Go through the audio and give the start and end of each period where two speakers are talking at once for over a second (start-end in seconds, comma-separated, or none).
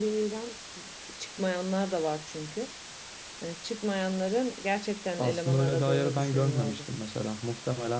5.2-6.9